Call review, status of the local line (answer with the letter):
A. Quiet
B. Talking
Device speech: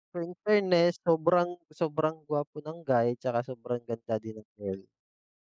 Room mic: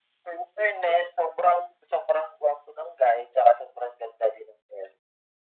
A